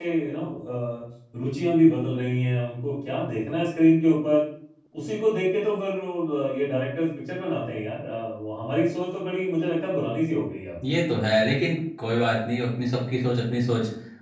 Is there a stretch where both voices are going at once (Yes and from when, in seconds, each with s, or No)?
No